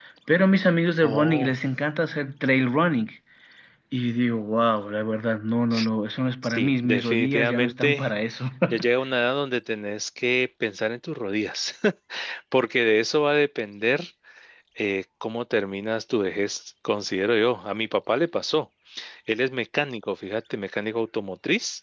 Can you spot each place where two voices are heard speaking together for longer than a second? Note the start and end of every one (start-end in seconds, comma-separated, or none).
6.4-8.1